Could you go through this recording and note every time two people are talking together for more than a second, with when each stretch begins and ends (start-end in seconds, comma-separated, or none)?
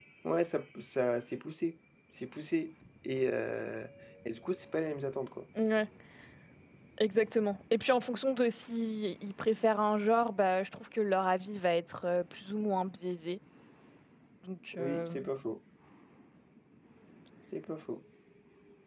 none